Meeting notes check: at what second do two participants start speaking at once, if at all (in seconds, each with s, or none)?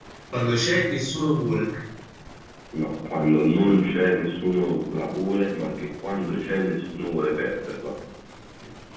none